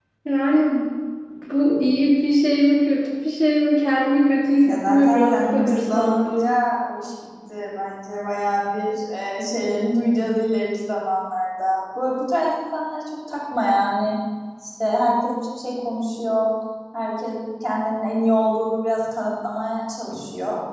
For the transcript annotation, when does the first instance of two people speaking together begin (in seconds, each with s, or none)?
4.6 s